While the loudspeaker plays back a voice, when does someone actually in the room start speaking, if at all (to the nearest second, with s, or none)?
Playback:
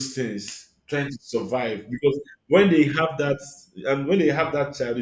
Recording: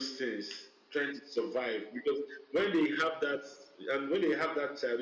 none